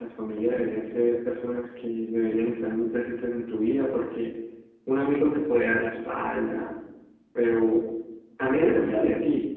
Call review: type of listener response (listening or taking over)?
listening